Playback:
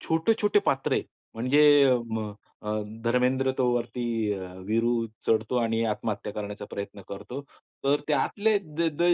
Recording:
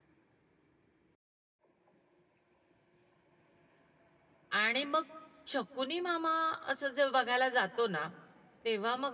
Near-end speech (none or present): present